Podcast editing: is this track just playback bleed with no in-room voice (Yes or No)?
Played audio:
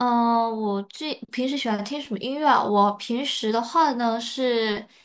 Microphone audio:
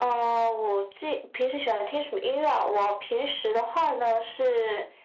Yes